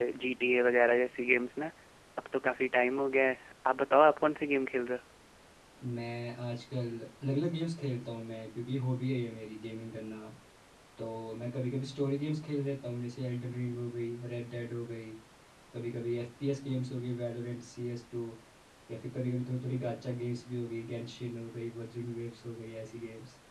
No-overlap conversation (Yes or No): Yes